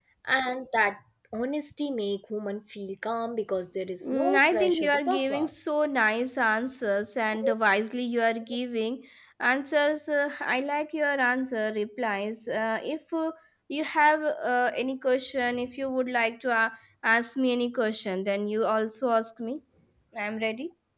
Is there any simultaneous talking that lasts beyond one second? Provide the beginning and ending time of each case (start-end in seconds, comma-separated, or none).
4.1-5.5